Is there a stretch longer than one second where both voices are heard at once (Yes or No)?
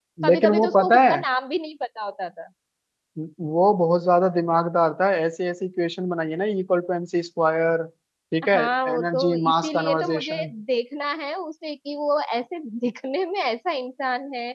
Yes